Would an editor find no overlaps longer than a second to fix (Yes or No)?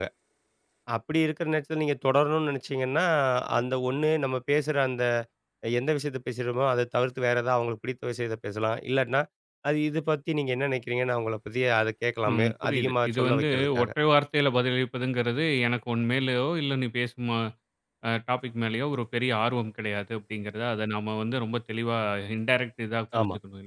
No